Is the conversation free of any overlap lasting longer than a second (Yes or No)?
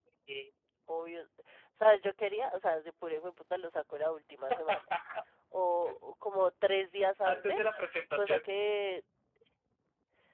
Yes